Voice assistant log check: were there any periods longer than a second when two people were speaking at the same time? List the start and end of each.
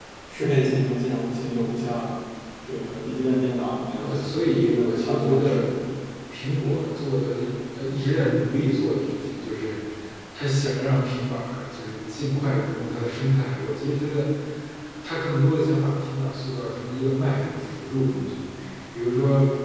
4.0-5.6

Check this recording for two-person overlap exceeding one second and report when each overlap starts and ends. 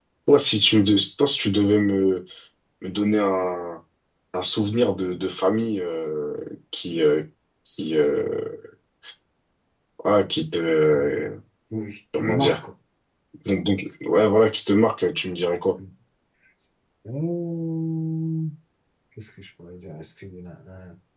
none

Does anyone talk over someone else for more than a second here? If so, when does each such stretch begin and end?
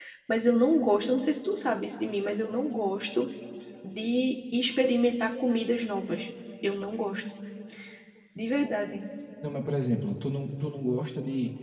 none

